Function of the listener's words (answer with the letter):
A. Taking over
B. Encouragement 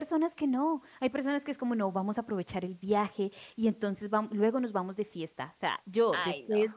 B